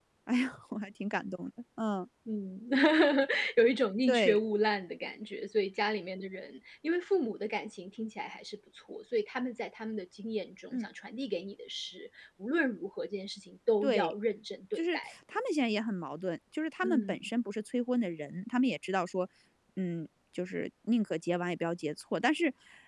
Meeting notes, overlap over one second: none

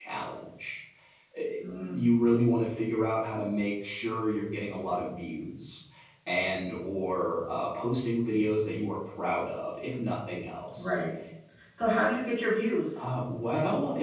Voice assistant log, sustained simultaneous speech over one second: none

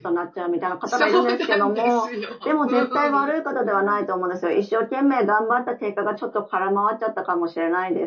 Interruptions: present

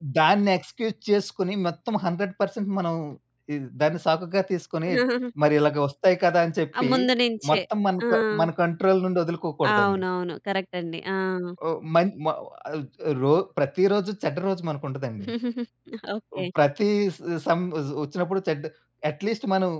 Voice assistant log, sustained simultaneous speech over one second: none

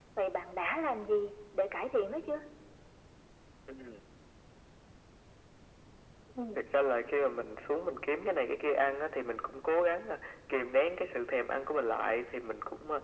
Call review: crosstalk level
none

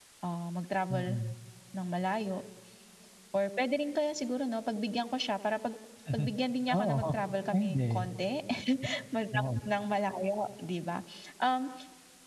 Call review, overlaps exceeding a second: none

